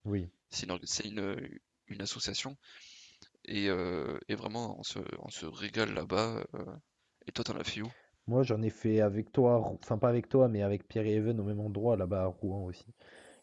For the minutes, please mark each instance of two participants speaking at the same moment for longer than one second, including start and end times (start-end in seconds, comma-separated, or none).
none